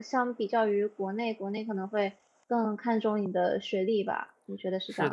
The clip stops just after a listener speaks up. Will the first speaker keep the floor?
No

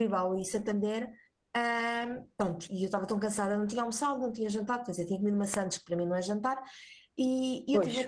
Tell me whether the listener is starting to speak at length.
No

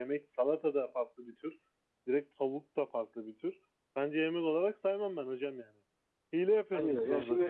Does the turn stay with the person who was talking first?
No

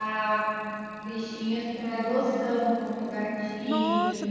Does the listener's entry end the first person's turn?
Yes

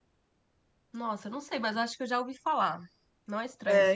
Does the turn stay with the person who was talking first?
No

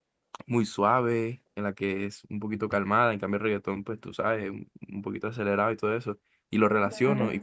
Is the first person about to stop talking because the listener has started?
No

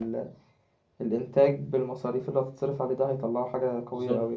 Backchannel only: No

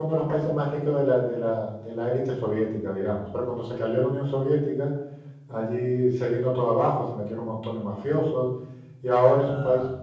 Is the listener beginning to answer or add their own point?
No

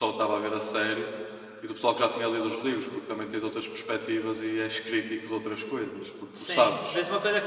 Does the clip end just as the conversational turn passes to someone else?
Yes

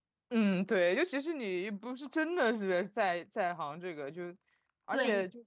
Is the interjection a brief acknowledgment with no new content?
No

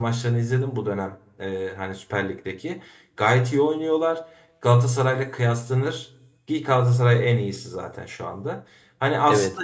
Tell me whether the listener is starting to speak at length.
No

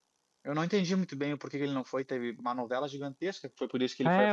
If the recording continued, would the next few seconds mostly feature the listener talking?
Yes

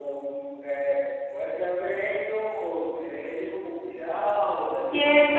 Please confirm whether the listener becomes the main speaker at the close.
Yes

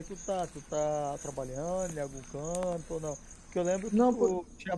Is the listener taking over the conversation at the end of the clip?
No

